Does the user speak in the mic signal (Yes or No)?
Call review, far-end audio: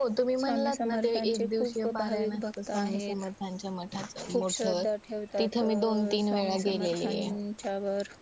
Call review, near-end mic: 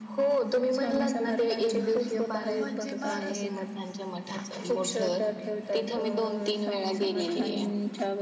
Yes